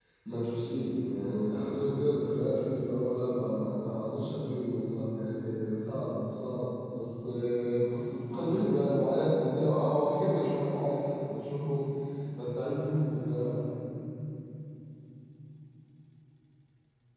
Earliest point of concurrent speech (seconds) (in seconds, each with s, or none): none